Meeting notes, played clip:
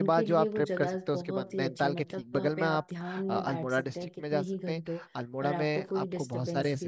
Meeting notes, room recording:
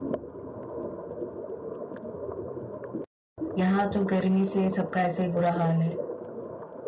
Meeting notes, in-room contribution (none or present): present